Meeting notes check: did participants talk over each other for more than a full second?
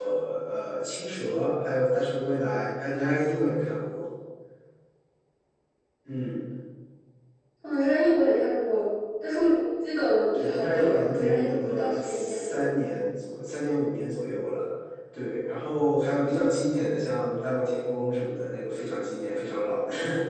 Yes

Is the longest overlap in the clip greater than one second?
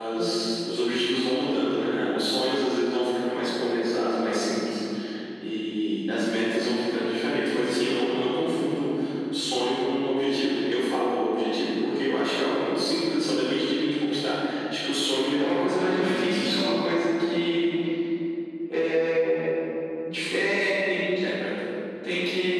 Yes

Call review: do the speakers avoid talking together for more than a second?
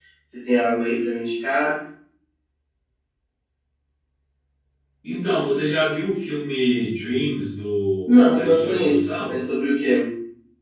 No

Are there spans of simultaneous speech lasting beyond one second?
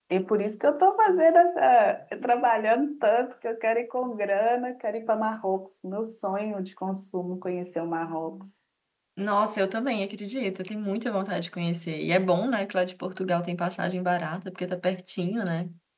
No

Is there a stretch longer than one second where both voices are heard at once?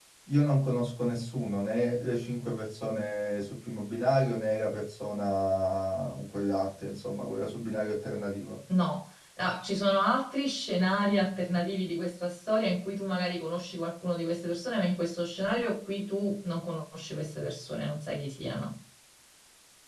No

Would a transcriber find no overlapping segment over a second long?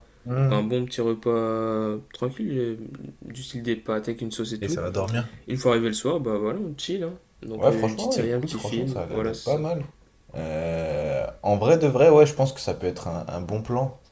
No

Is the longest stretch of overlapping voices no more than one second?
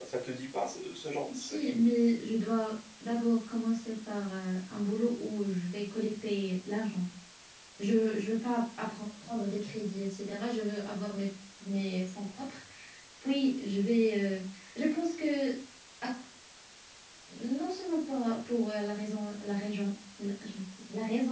Yes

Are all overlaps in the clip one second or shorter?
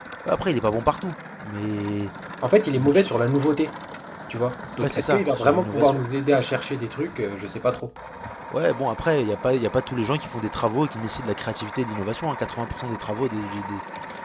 No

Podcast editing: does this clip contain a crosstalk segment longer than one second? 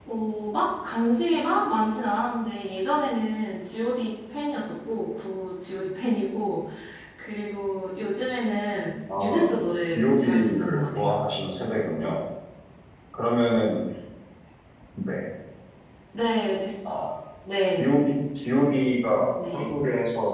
Yes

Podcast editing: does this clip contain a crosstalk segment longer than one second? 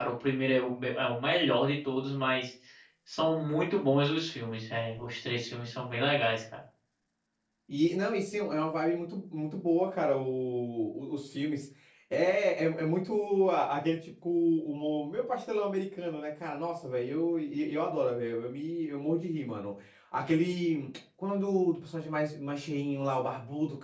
No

